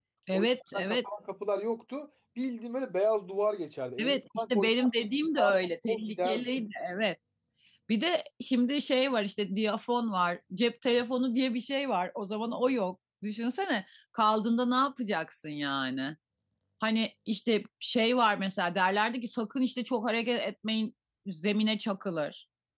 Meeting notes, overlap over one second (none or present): present